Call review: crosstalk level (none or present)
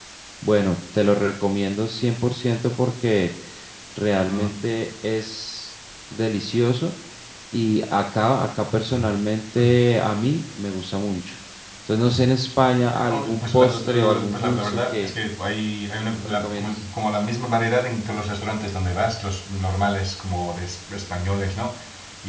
present